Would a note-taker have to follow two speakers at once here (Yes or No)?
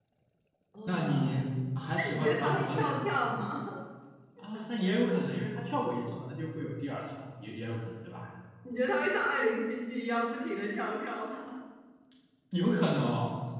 Yes